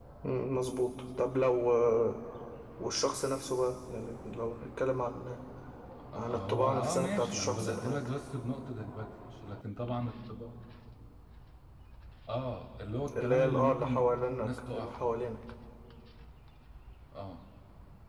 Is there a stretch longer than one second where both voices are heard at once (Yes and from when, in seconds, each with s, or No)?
Yes, from 6.2 s